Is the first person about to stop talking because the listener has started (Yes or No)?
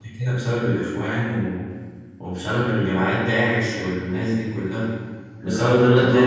Yes